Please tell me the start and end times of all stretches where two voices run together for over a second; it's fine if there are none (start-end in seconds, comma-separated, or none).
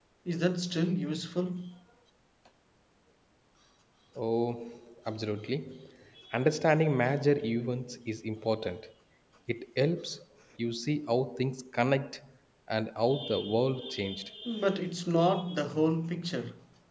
none